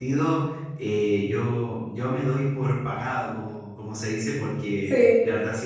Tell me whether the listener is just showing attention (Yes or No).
Yes